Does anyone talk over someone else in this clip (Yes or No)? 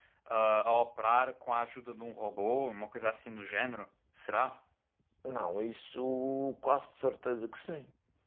No